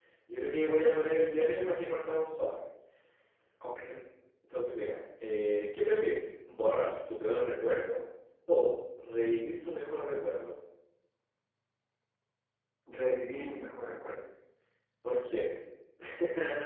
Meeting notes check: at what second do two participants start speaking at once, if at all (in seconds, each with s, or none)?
none